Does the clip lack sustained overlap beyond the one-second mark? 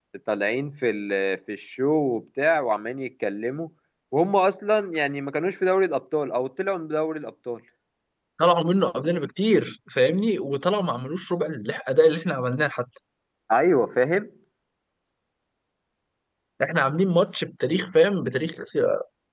Yes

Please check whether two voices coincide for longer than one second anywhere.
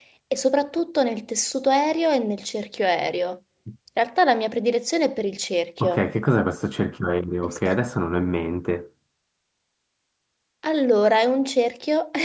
No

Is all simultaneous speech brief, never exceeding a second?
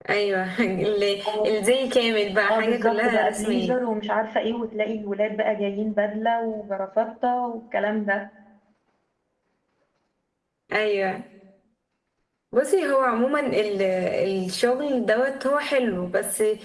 No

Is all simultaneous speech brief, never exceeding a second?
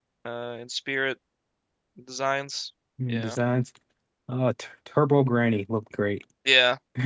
Yes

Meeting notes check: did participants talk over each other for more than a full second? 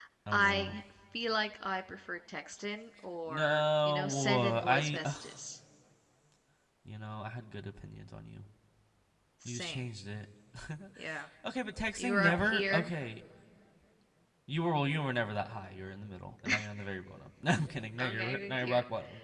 Yes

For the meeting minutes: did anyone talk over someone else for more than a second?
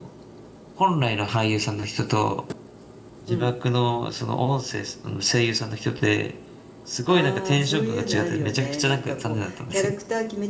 Yes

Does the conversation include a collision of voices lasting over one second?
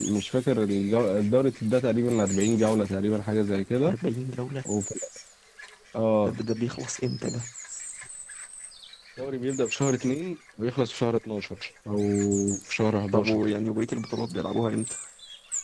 No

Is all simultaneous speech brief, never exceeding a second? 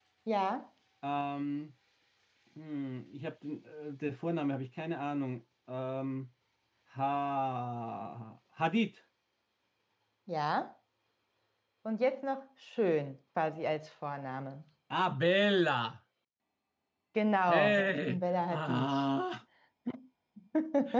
No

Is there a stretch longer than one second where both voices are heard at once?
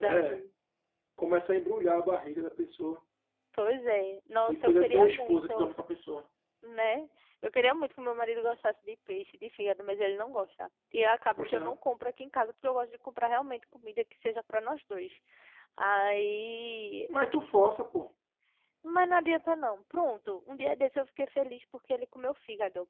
Yes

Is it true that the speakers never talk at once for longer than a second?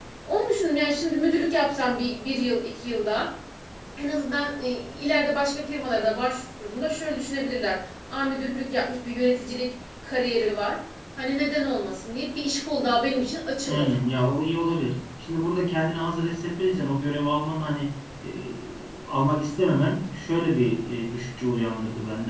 Yes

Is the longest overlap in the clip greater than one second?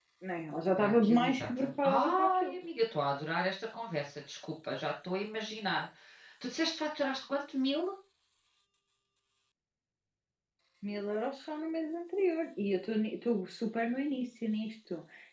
Yes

